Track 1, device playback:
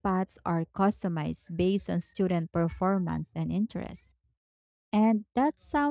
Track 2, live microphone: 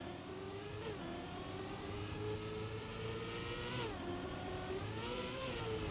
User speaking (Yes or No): No